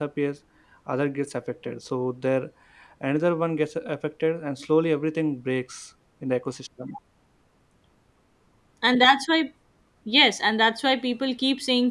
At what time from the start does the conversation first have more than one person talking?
none

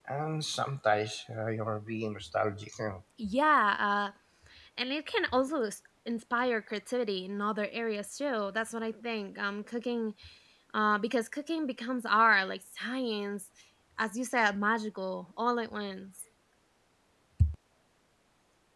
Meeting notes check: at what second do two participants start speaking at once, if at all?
none

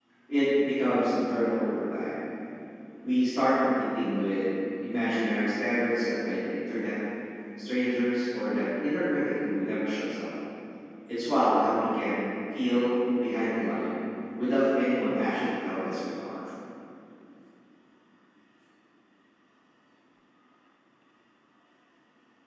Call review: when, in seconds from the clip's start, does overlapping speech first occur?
none

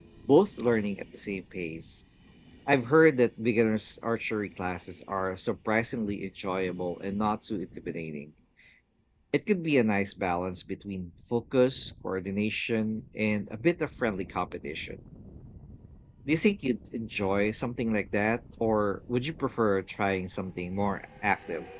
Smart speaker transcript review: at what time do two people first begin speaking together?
none

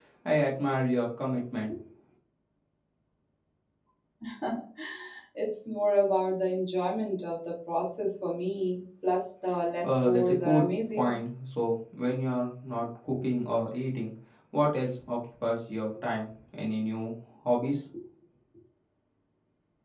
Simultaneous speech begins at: 9.8 s

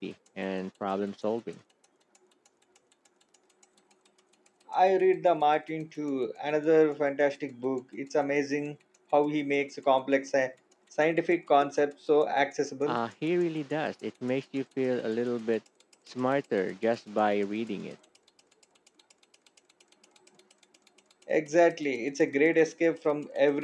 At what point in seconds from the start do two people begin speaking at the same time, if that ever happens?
none

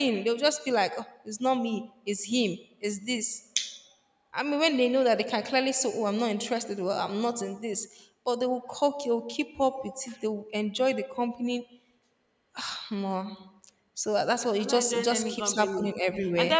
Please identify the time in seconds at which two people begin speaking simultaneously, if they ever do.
14.6 s

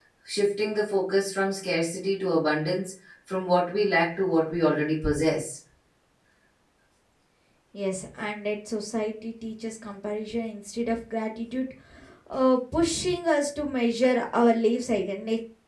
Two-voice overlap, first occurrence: none

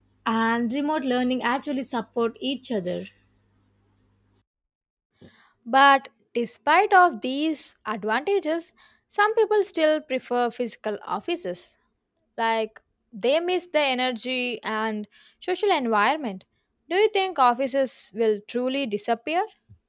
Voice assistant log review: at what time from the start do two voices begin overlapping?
none

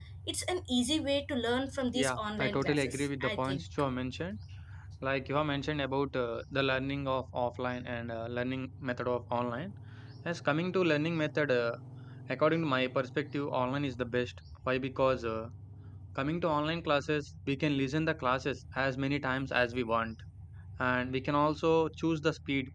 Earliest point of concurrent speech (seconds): 1.9 s

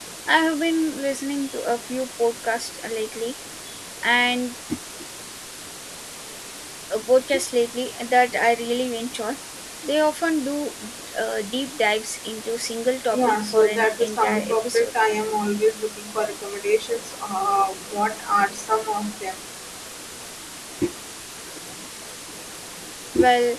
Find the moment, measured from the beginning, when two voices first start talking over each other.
13.1 s

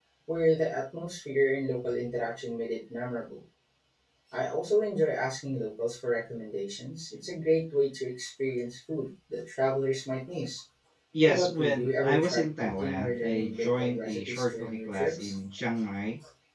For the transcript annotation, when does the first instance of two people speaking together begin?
11.2 s

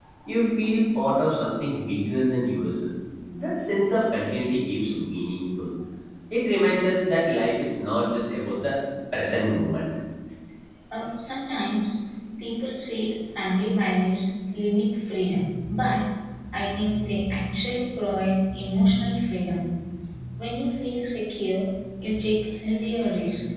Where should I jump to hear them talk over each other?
none

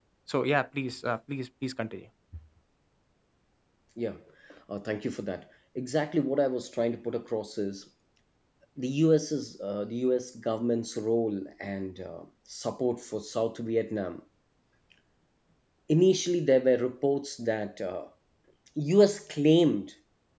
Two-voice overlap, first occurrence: none

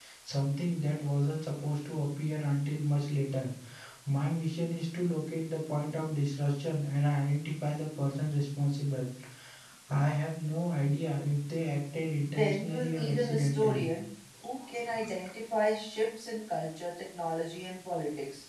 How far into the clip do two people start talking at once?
12.2 s

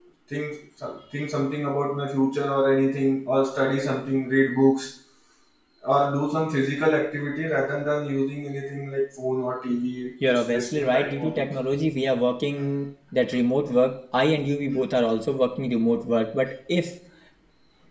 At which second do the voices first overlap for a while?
10.2 s

